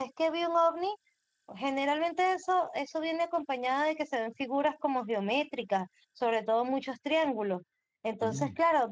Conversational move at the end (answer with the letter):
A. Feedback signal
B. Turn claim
A